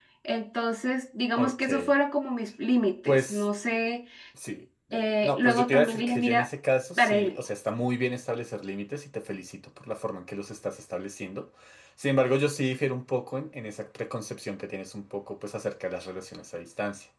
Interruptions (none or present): present